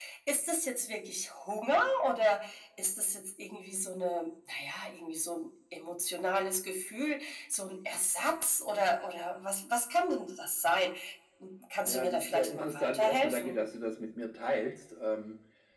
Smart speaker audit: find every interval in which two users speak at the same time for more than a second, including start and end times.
11.9-13.6

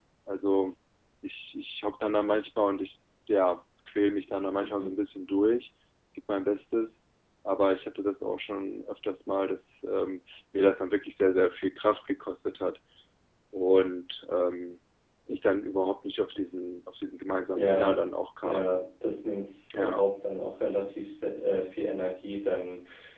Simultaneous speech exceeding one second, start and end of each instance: none

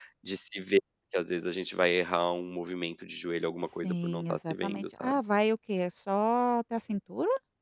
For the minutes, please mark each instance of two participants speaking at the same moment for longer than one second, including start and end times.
3.6-5.2

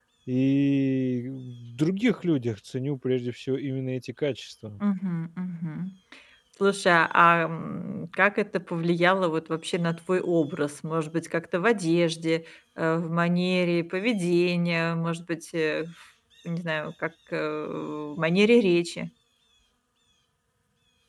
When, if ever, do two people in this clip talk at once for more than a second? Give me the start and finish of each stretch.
none

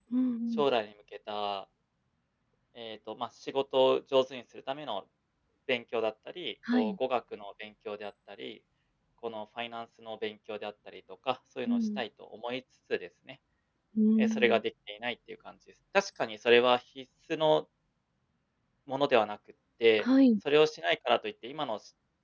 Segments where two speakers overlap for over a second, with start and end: none

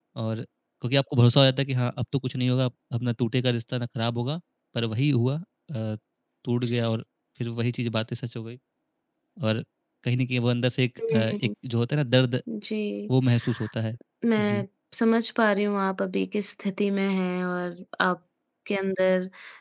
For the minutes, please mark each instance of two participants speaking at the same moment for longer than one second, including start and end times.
none

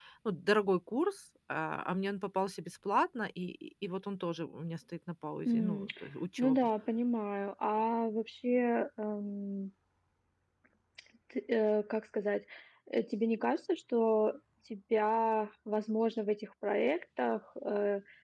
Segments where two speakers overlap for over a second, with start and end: none

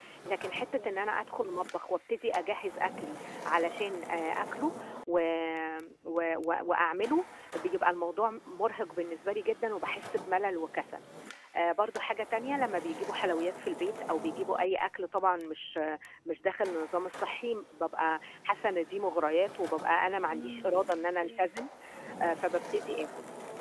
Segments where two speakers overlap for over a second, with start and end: 20.3-21.5

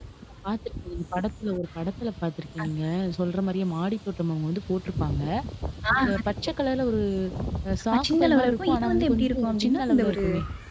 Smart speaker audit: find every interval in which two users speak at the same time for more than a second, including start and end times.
7.9-10.2

